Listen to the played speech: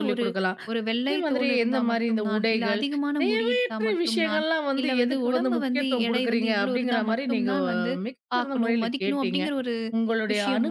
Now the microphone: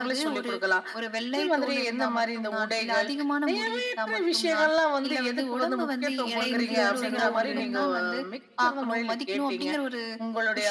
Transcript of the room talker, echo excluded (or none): அ இன்ஃப்ளூயன்சரோ, ஒரு